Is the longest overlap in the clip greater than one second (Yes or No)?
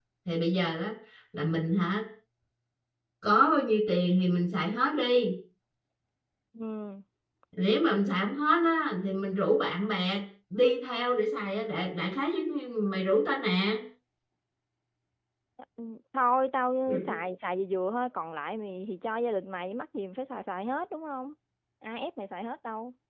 No